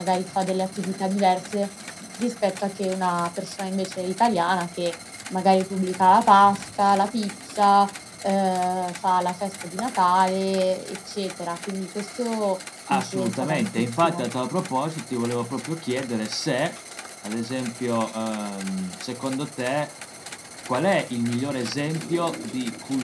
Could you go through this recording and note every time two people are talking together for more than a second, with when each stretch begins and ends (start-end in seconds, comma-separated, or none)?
12.9-14.2